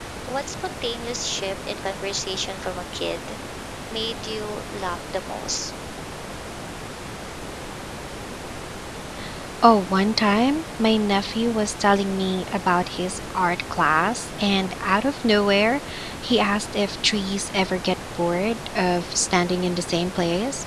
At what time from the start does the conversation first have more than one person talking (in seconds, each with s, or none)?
none